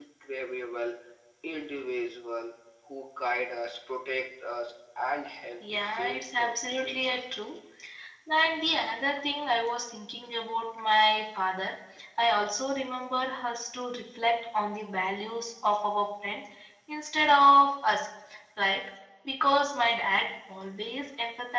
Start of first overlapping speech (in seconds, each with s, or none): 5.6 s